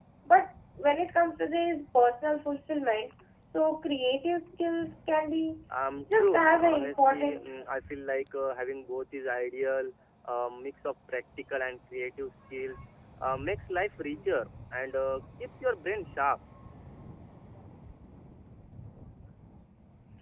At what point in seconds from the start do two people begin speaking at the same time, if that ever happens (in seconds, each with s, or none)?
6.2 s